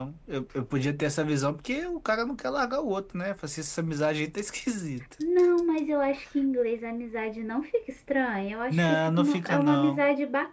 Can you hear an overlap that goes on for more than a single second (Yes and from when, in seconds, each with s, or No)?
Yes, from 8.7 s